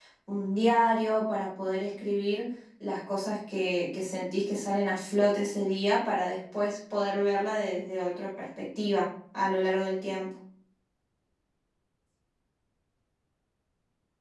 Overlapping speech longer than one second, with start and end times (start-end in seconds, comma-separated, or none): none